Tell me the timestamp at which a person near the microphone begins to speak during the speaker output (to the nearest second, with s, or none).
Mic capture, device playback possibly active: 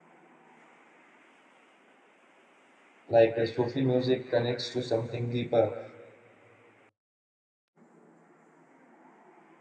3 s